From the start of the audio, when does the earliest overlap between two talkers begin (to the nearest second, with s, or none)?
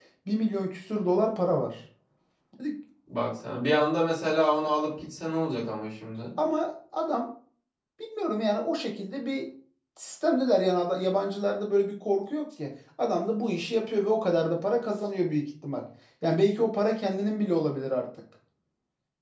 none